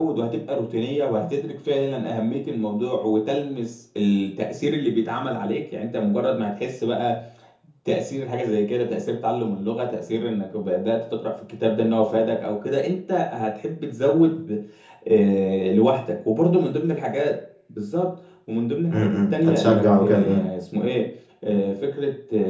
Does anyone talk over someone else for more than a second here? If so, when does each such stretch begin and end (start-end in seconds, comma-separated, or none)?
18.9-20.4